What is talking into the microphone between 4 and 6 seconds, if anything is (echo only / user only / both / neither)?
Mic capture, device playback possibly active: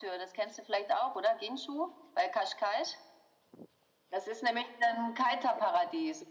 echo only